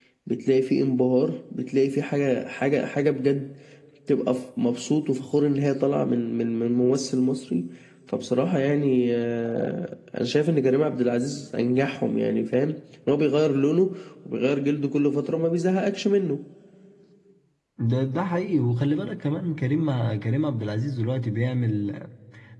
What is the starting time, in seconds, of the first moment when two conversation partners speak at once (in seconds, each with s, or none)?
none